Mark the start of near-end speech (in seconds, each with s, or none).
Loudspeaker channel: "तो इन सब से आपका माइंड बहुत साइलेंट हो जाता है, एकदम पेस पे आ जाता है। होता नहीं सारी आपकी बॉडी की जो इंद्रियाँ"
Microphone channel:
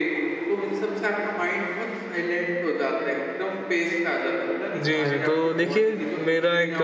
4.8 s